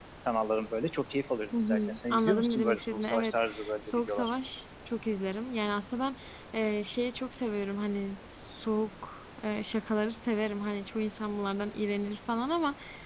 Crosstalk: present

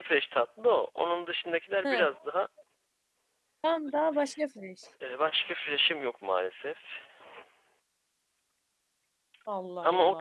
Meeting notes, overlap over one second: none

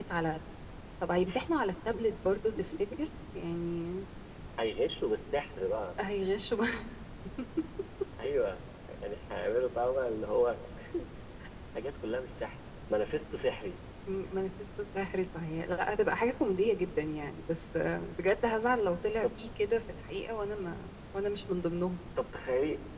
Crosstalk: none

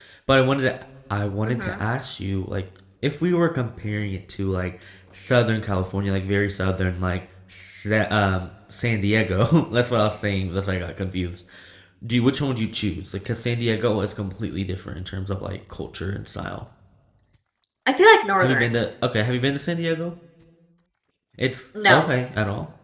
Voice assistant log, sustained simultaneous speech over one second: none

